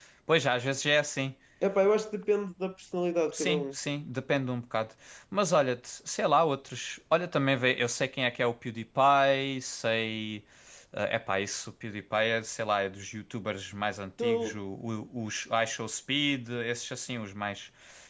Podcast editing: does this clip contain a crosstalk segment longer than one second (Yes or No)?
No